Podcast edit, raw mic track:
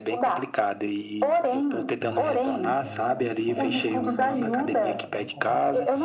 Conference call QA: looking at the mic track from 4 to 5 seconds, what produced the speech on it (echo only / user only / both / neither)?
both